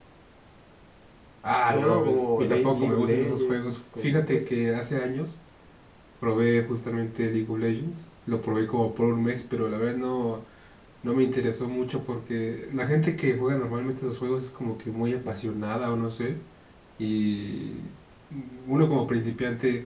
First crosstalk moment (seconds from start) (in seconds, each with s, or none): 1.7 s